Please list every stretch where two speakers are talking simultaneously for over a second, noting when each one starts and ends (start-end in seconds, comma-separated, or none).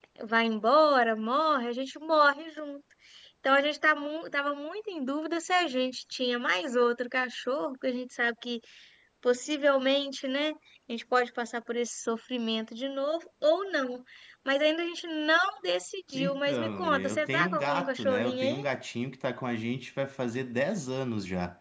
16.2-18.6